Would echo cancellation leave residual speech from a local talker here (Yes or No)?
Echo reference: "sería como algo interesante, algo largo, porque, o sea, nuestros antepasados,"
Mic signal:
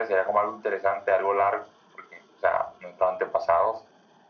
No